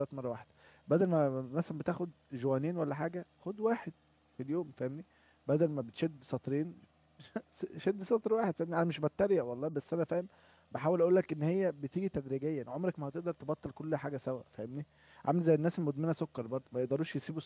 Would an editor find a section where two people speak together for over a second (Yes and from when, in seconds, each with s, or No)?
No